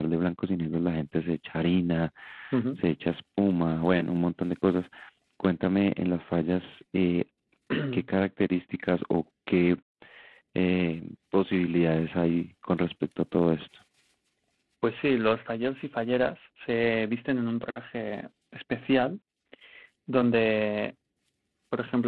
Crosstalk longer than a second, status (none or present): none